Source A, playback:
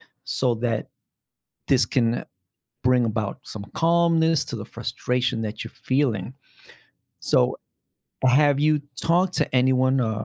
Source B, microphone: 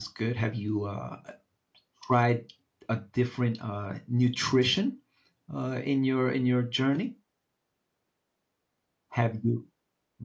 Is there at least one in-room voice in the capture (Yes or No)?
Yes